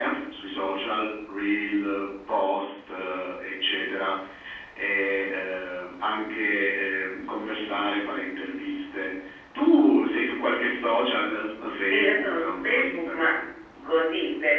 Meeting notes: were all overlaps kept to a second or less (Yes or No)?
No